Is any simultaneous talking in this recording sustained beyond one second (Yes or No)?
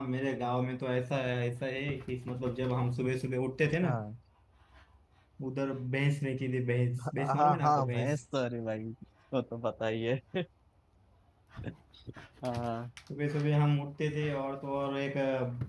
Yes